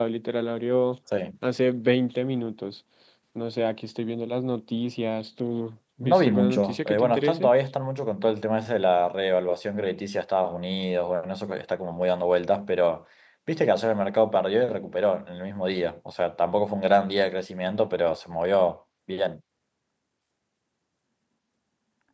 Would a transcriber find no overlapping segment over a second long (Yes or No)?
No